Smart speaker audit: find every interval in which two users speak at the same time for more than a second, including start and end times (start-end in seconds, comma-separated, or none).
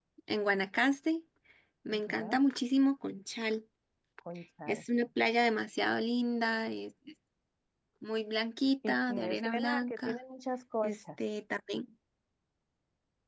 8.9-10.2